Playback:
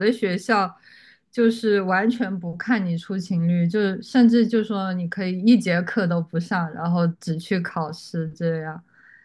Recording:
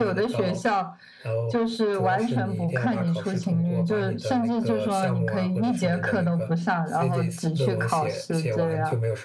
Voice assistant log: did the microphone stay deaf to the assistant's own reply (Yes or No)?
No